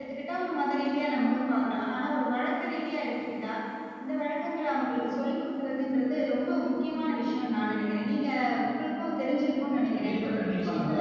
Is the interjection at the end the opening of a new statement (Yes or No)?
Yes